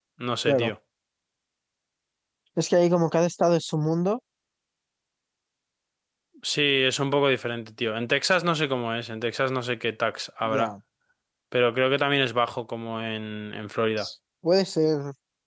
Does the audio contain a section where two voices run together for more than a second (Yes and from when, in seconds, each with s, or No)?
No